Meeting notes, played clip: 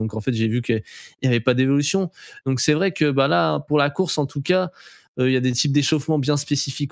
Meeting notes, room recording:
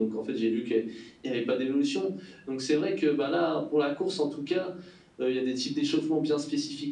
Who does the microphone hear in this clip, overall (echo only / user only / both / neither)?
echo only